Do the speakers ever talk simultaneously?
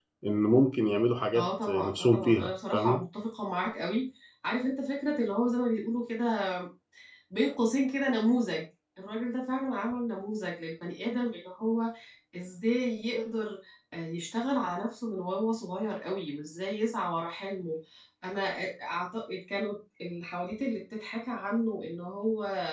Yes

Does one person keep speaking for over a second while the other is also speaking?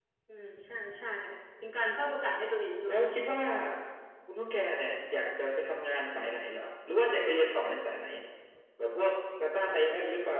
No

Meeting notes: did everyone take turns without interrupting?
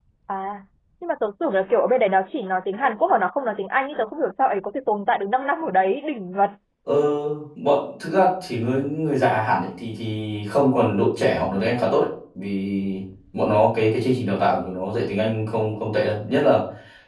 Yes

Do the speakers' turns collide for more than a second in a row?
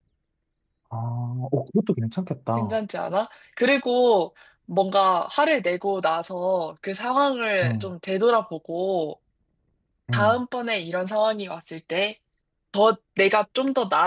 No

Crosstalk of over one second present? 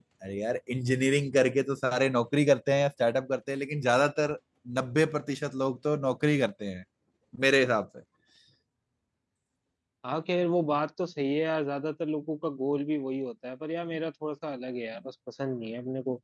No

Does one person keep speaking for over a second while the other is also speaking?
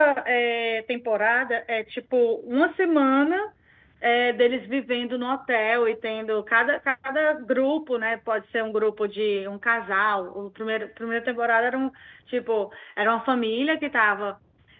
No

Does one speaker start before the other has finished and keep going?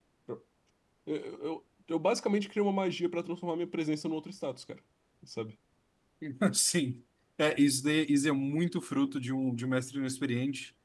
No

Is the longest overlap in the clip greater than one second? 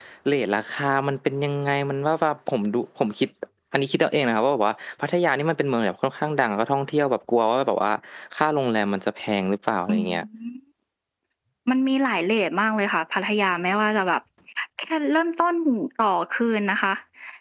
No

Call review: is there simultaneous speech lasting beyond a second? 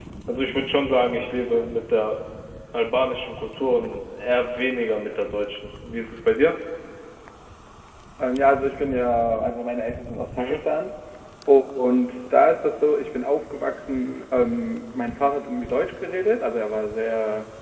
No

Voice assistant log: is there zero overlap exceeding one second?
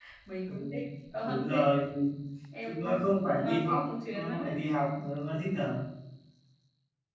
No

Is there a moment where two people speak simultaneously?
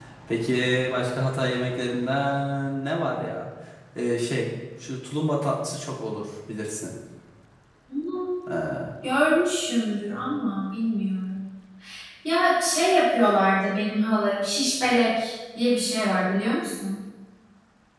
No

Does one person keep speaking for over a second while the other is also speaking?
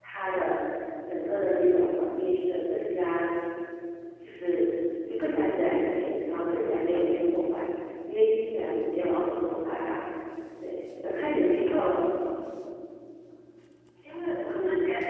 No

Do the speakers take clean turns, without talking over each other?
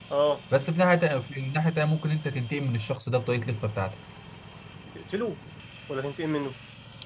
Yes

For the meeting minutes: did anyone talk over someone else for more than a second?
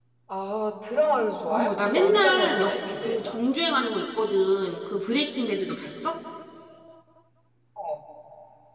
Yes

